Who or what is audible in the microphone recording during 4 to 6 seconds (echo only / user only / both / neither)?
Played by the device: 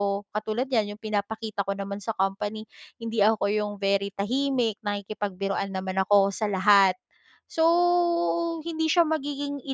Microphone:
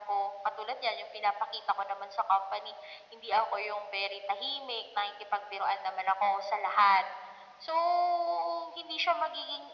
echo only